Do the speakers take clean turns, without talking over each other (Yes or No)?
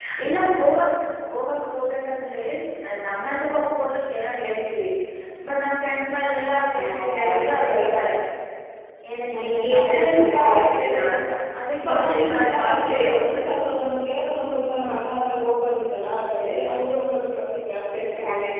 No